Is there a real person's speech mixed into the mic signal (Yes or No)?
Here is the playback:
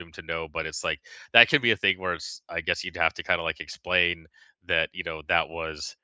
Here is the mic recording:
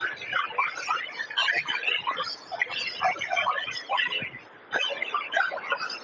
No